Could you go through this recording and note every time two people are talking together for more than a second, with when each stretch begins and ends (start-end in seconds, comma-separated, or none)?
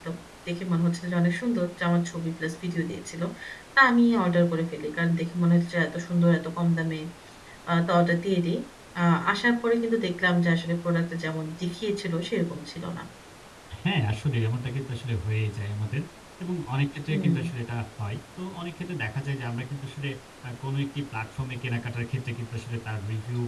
none